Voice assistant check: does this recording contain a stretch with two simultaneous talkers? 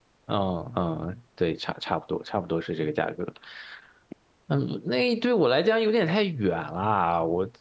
No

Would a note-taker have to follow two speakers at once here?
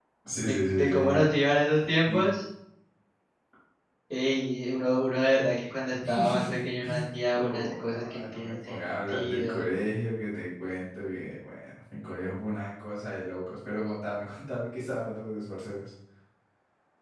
Yes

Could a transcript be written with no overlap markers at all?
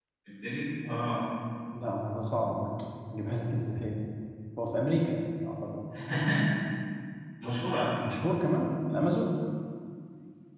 Yes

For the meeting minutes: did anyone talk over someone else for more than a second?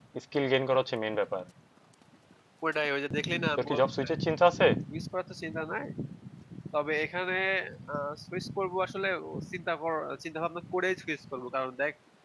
No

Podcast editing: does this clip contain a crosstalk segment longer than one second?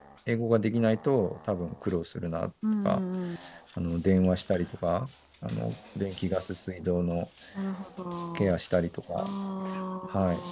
No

